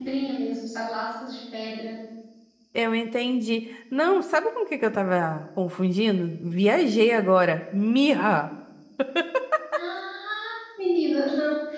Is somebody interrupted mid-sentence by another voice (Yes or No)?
No